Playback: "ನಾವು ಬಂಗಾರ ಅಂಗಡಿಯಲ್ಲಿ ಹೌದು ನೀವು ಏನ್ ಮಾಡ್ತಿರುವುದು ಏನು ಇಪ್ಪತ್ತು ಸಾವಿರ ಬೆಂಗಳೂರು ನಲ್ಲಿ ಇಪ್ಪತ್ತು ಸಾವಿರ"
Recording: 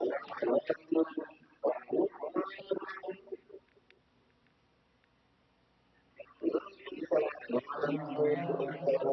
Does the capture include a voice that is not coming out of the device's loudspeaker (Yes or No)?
Yes